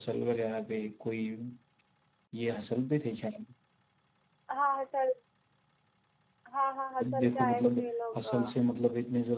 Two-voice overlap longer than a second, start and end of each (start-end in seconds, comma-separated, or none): 7.0-8.5